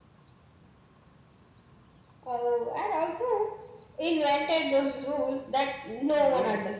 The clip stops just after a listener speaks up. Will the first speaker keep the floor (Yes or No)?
No